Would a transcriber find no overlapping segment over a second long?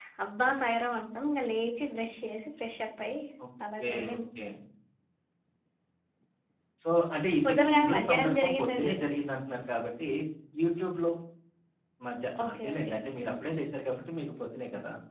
No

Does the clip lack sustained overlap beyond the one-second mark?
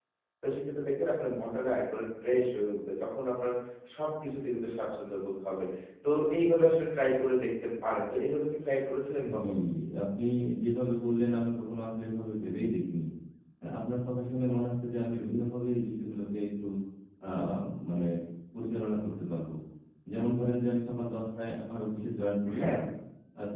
Yes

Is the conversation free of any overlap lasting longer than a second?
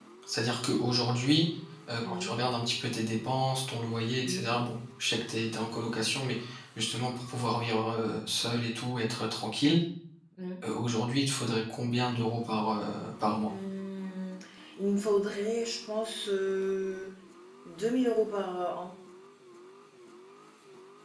Yes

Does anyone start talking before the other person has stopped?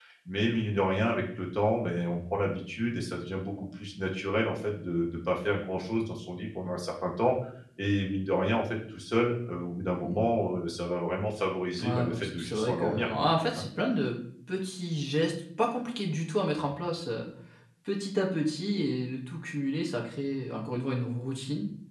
Yes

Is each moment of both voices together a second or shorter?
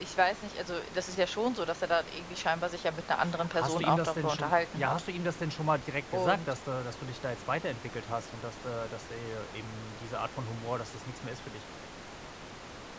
No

